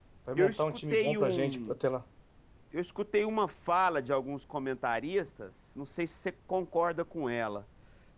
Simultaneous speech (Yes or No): Yes